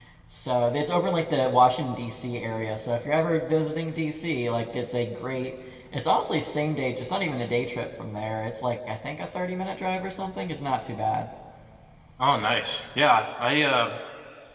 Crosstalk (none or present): none